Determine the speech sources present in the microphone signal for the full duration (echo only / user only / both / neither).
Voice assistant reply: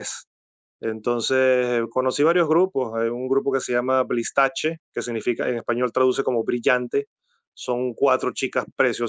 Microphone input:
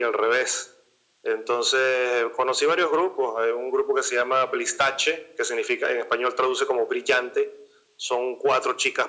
echo only